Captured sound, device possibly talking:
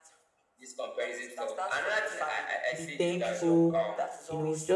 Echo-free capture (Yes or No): No